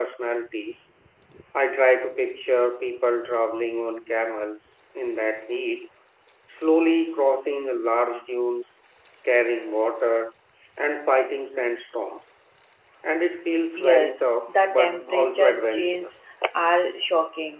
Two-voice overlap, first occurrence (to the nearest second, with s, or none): 14 s